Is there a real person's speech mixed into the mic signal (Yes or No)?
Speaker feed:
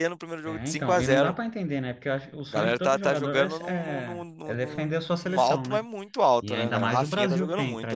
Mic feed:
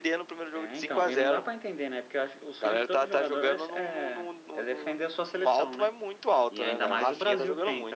No